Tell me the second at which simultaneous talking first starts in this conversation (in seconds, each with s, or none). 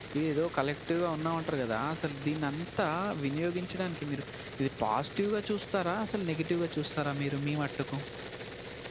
none